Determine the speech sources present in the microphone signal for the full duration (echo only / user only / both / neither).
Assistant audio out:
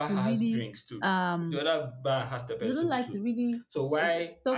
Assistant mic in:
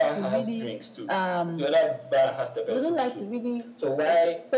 echo only